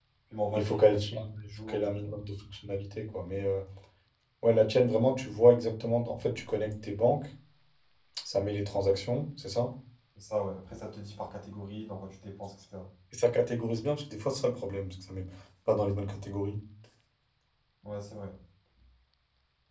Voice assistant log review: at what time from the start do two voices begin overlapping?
0.5 s

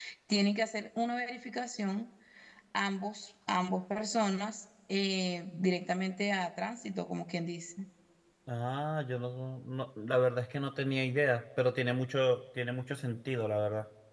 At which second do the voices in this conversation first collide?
none

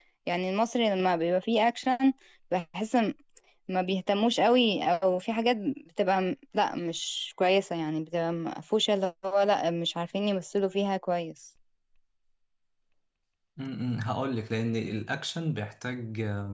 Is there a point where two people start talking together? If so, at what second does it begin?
none

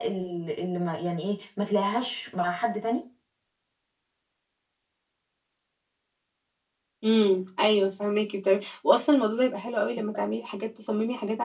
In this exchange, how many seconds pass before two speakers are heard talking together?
none

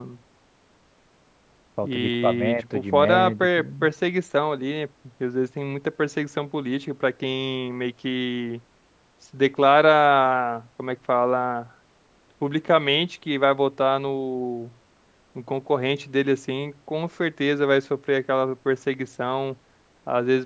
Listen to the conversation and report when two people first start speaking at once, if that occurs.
1.8 s

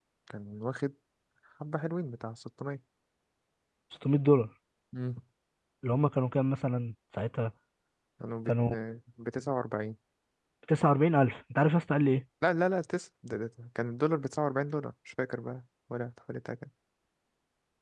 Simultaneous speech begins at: none

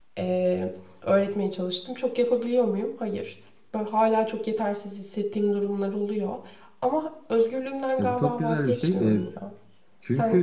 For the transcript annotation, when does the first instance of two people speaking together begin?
8.0 s

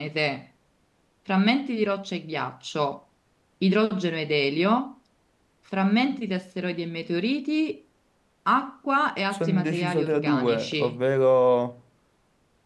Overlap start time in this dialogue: 9.3 s

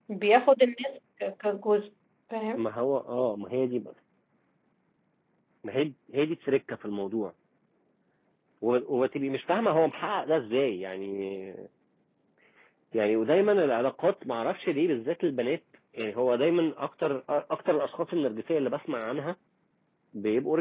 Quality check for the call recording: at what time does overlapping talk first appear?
none

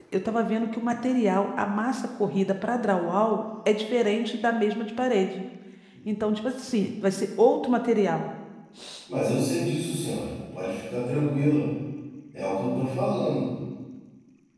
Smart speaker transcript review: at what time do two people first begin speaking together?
none

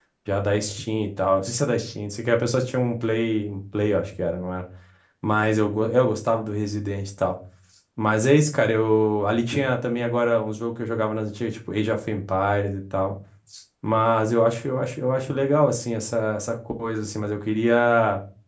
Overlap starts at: none

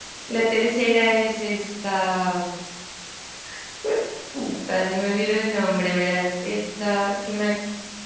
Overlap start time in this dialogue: none

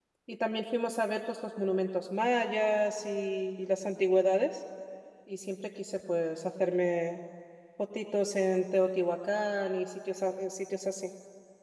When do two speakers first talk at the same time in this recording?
none

